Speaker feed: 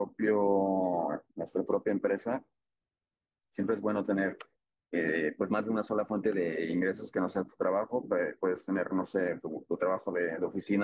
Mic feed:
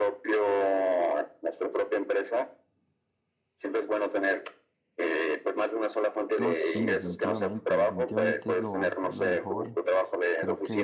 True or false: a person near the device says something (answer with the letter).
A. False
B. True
B